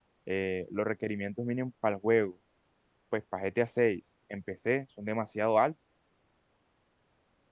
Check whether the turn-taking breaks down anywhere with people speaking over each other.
No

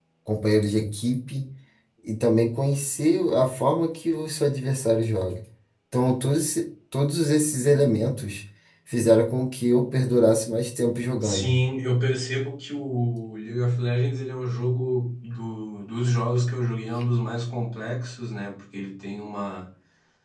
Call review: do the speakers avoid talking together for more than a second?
Yes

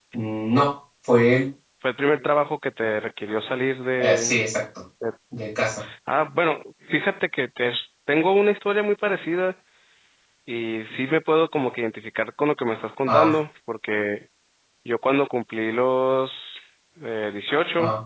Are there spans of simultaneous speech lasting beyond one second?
No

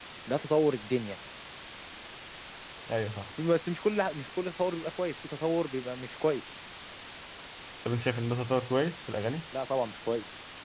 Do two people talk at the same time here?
No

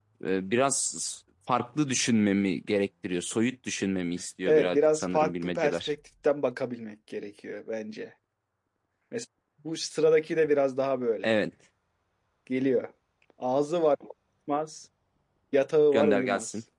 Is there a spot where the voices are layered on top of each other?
Yes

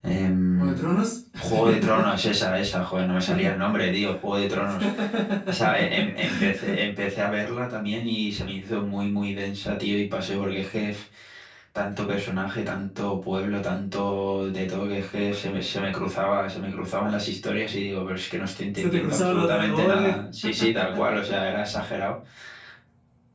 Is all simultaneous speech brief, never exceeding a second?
No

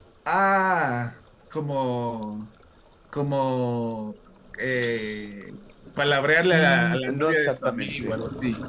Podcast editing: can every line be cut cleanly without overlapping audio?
No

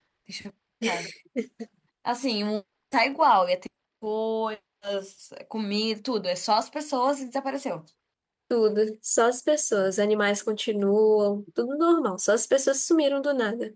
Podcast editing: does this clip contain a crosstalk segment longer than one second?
No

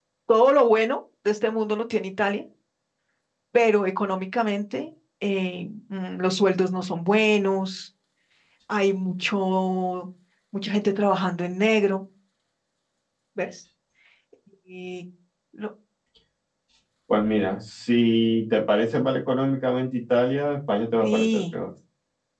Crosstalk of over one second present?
No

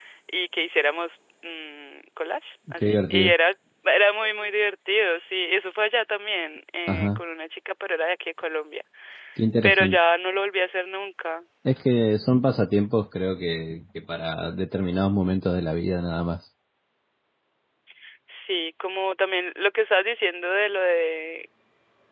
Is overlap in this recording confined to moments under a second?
Yes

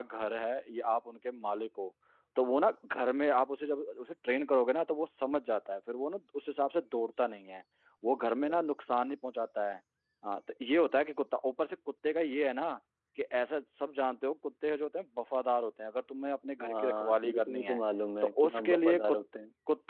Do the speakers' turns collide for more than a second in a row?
Yes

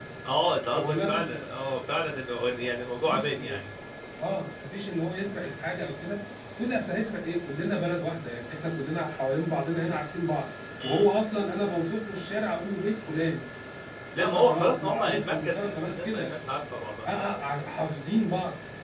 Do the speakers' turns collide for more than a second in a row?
Yes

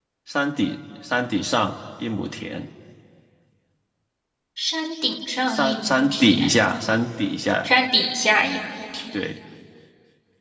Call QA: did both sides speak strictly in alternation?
No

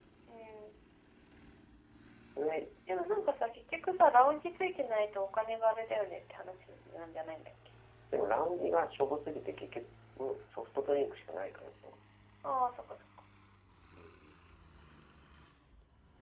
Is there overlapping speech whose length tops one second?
No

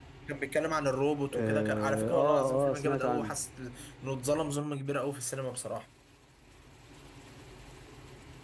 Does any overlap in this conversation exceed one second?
Yes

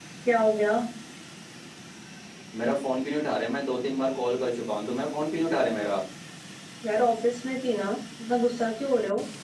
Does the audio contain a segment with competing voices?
No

